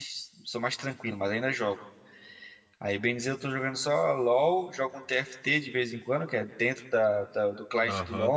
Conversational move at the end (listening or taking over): taking over